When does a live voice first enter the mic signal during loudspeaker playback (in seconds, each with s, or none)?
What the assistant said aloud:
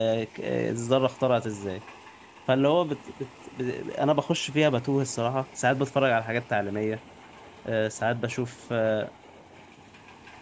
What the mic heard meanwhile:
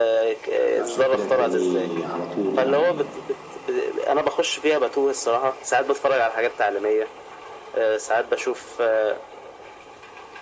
0.7 s